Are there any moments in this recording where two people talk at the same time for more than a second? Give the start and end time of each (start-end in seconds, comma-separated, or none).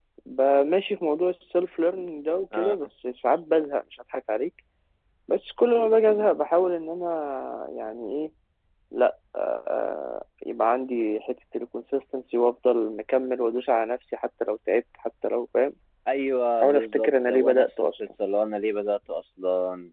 16.6-17.9